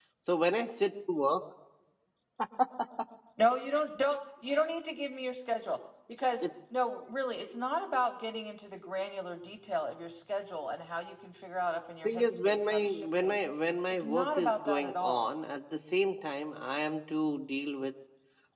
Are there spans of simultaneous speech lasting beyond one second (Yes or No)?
Yes